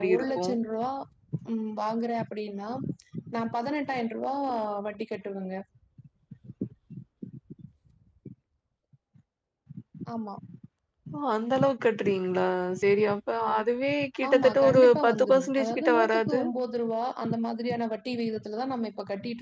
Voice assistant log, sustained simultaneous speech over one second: present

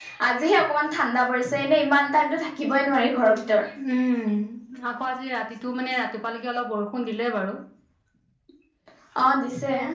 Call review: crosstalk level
none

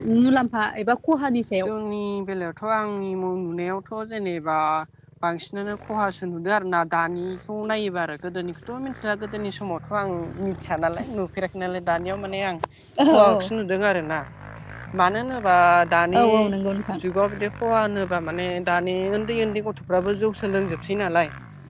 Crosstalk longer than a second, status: none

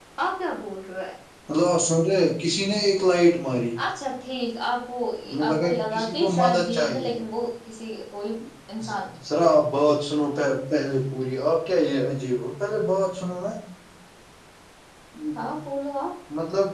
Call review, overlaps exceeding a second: present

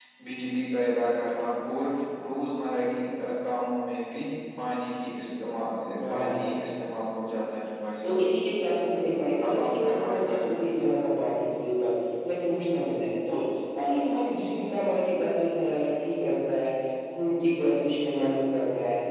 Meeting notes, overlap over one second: present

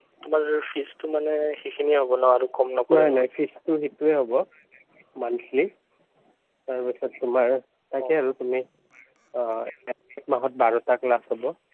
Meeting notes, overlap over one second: none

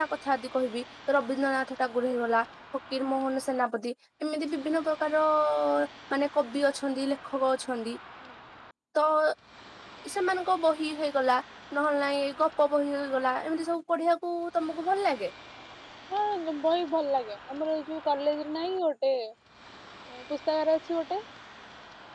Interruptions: none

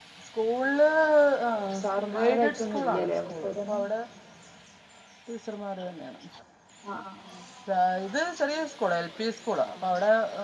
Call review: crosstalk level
present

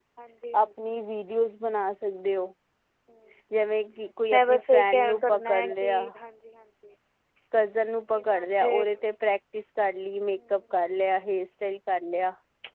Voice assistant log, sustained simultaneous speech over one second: present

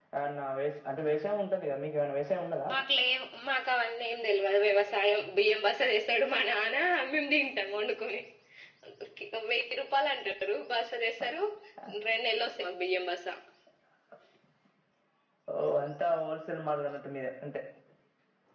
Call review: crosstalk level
none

